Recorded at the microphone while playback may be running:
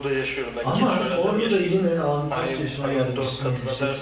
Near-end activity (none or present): present